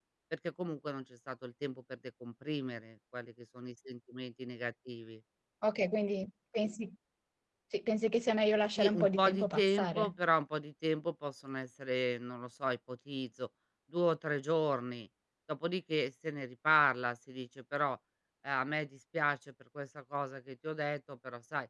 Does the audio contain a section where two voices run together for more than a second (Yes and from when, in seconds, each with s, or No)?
Yes, from 8.8 s